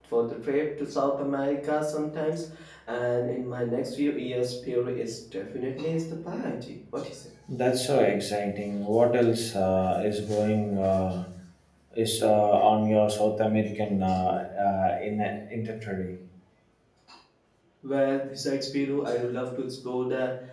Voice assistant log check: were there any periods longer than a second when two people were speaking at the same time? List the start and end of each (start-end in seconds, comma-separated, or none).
none